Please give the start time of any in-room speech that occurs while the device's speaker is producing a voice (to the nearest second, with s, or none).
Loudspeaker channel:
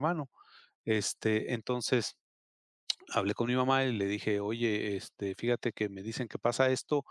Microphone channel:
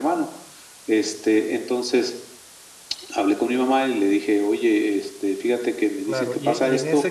6 s